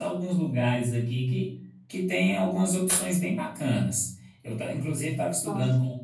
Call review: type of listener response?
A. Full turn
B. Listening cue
B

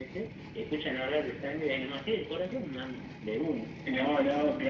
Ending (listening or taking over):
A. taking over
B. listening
A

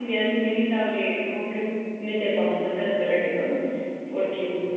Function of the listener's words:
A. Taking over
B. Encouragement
B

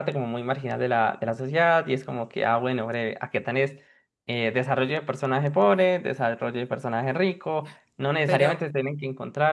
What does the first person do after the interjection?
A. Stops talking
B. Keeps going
B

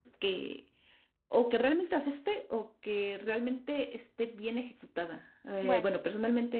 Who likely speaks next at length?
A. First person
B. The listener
A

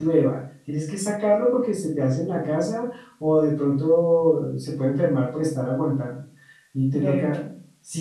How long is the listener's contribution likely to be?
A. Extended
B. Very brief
B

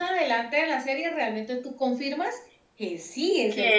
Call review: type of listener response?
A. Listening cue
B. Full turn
B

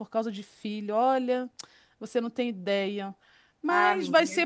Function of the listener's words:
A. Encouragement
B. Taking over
A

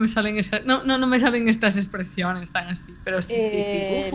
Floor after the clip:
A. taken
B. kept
A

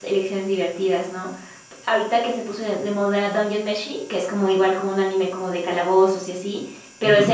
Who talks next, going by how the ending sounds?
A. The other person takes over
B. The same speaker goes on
B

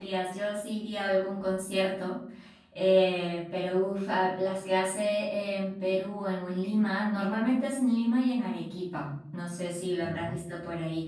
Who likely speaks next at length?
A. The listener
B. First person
B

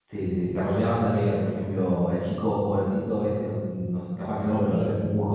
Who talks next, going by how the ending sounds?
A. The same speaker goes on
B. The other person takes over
A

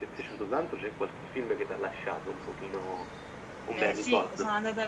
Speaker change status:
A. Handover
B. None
A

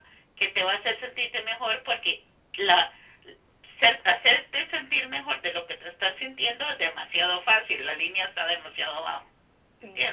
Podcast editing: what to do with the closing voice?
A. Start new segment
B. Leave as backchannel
A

